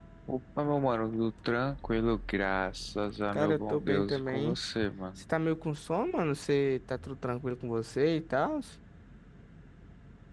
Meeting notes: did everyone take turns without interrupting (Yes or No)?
No